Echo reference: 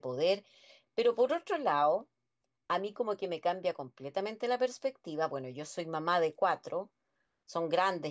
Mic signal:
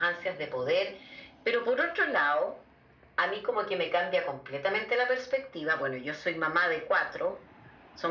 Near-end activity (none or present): none